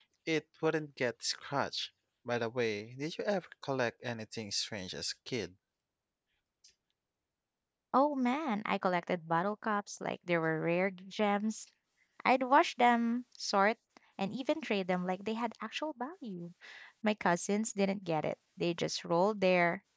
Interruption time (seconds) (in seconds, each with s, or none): none